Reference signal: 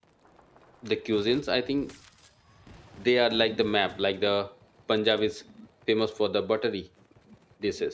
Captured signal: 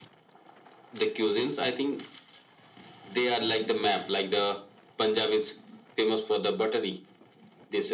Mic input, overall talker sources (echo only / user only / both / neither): echo only